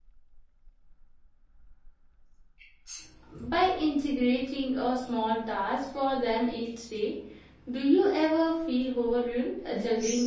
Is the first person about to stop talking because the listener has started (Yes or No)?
Yes